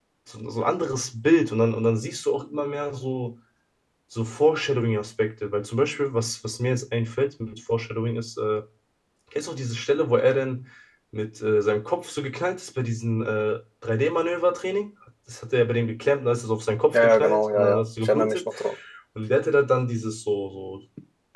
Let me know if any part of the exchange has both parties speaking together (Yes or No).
Yes